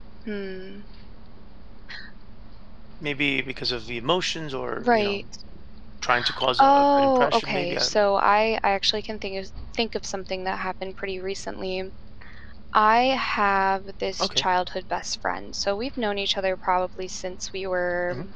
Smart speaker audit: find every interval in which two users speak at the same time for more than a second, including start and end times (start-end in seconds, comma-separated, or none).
6.6-8.0